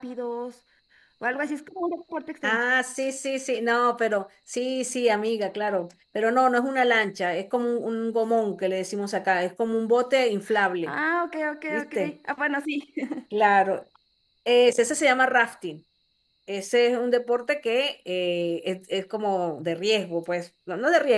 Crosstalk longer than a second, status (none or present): none